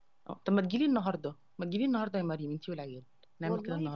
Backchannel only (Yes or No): No